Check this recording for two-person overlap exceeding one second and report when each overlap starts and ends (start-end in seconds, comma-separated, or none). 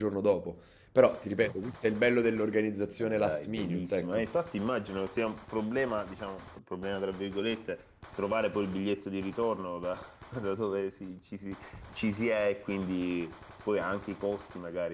3.0-4.3